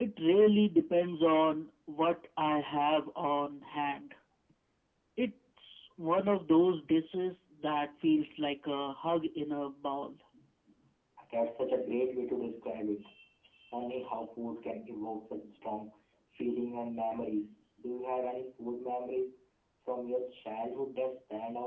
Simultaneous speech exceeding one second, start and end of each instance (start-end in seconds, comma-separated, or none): none